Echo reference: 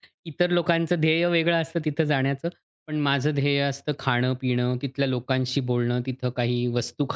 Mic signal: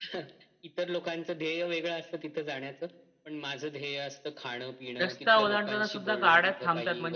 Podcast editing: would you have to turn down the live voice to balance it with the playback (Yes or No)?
Yes